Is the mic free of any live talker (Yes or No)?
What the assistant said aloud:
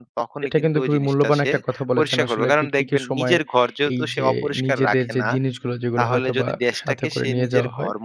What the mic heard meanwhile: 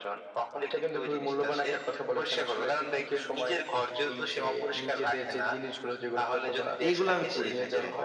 No